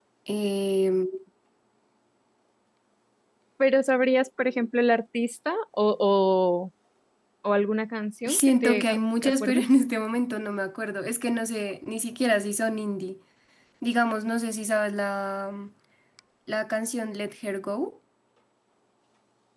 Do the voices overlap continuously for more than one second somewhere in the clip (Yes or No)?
Yes